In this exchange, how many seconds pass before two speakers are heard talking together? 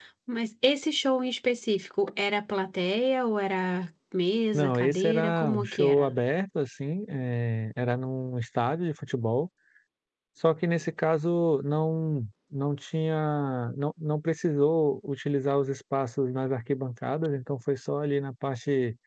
5 s

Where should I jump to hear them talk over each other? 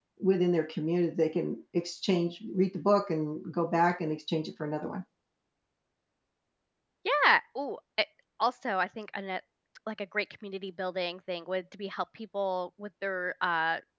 none

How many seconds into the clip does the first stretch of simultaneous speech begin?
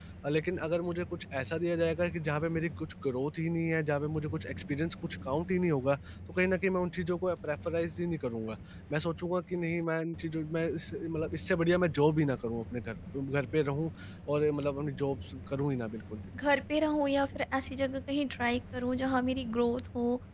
none

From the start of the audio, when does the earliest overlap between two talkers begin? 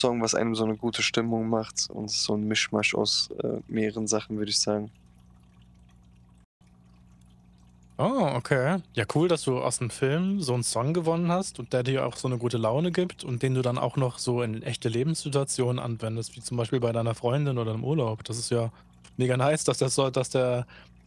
none

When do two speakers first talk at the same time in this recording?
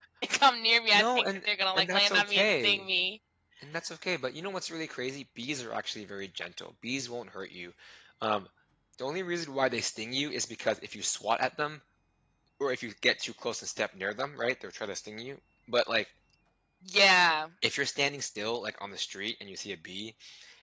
1 s

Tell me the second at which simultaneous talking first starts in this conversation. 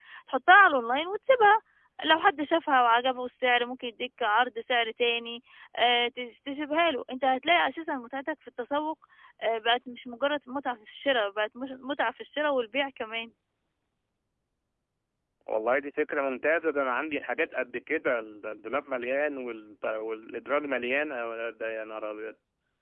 none

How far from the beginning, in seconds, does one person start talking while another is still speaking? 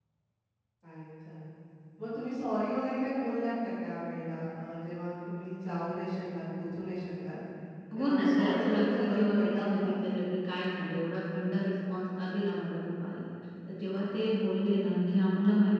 8 s

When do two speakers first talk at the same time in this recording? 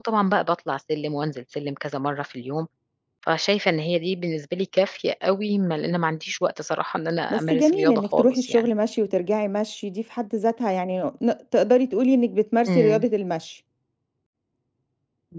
7 s

